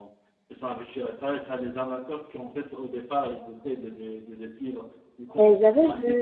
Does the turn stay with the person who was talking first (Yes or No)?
No